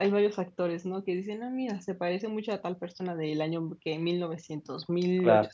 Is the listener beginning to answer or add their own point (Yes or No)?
No